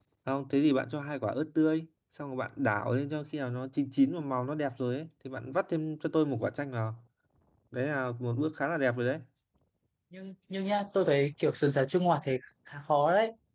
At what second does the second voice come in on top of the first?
none

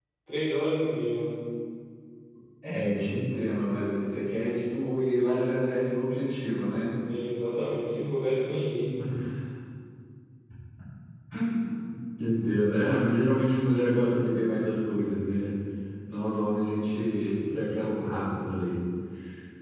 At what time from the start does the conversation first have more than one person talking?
none

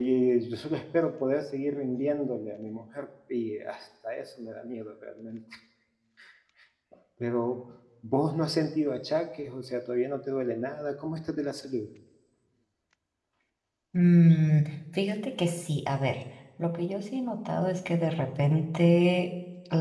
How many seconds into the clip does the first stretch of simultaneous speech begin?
none

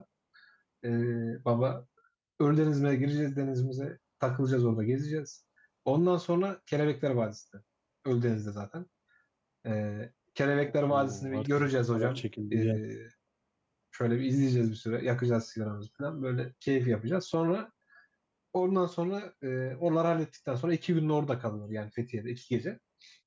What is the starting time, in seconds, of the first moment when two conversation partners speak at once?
11 s

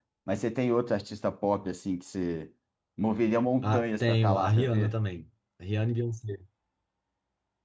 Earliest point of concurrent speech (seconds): 4 s

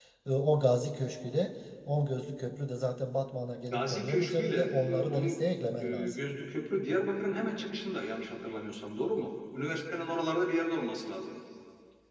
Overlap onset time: 4 s

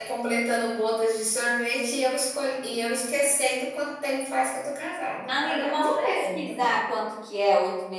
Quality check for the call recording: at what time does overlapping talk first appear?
5 s

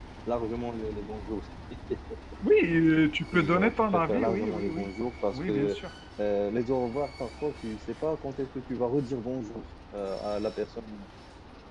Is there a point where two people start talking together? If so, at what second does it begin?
3 s

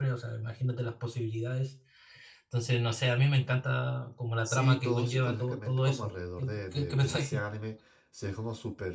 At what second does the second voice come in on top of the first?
4 s

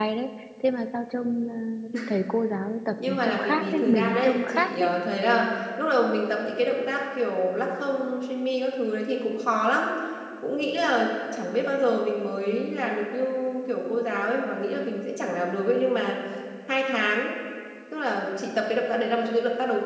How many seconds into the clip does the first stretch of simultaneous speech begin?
3 s

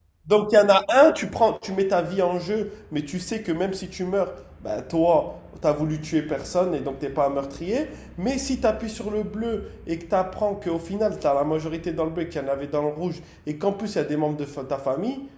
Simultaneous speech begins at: none

